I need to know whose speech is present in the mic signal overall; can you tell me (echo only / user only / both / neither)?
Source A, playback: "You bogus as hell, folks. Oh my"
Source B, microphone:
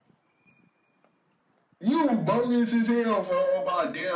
echo only